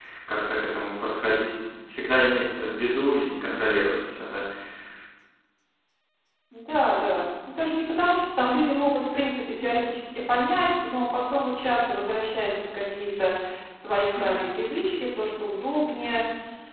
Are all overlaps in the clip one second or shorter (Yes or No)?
Yes